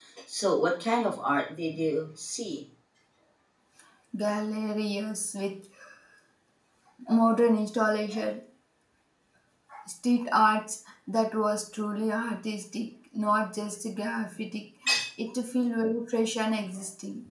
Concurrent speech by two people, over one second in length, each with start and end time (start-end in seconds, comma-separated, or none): none